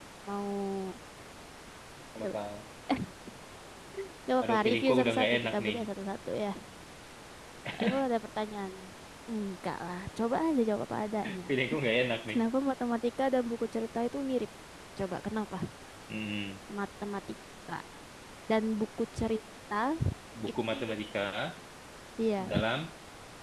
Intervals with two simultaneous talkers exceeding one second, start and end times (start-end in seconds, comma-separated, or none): 4.4-5.8